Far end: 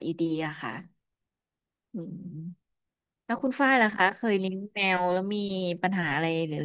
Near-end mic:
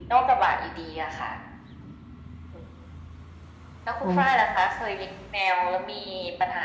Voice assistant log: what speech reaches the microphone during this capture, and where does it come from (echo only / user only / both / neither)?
both